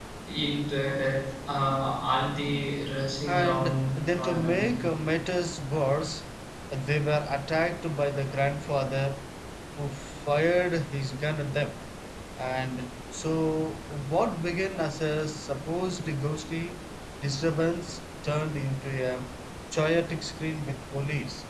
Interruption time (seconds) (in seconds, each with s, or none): 3.2 s